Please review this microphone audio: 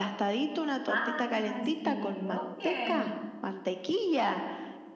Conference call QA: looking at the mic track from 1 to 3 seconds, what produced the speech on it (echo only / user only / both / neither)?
both